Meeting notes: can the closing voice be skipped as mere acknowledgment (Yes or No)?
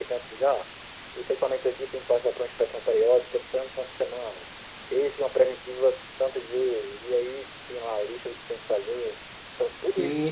No